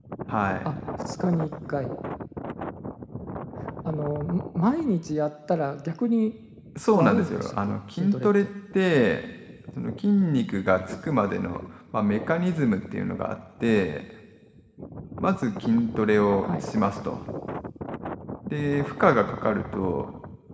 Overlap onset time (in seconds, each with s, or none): 6.9 s